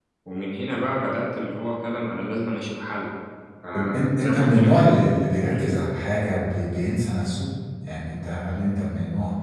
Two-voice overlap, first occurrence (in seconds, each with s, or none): 3.8 s